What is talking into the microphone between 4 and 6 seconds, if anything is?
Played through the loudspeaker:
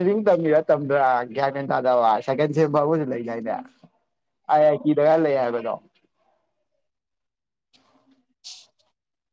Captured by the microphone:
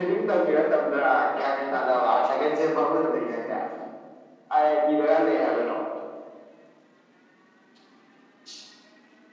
echo only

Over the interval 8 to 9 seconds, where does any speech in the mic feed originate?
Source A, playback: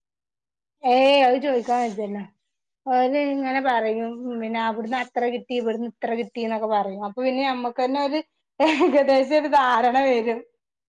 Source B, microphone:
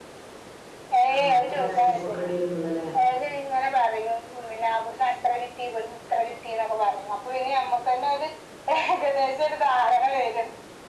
echo only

